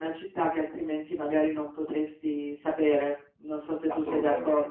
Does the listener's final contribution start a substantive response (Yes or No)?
Yes